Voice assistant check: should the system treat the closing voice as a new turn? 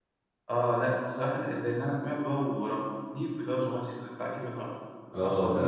Yes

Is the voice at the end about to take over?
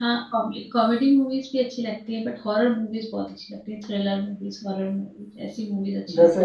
Yes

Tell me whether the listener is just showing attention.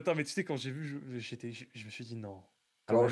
No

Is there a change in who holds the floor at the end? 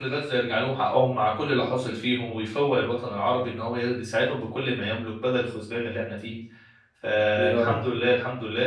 No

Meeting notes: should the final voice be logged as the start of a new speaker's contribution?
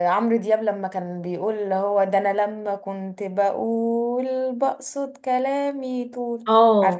Yes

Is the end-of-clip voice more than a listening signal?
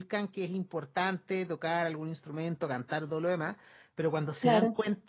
No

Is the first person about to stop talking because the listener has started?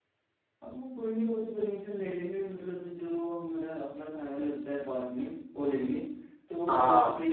No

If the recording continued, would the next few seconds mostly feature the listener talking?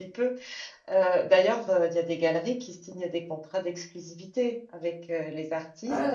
No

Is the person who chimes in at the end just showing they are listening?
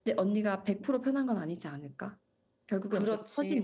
No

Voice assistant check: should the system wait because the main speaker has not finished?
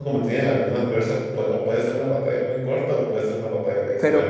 No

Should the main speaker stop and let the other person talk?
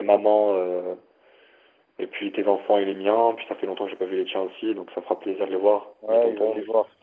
Yes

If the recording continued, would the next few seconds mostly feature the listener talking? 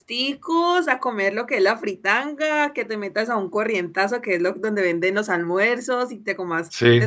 No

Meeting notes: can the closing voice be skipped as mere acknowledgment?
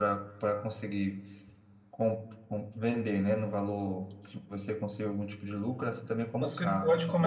No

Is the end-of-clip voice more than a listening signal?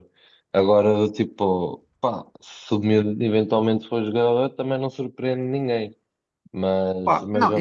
Yes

